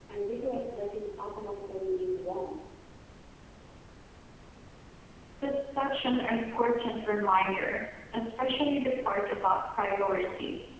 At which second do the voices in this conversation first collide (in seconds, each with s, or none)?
none